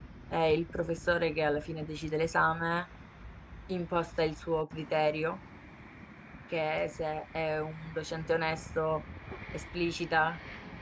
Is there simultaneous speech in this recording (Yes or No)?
No